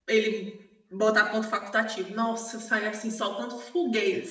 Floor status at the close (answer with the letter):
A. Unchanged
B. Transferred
B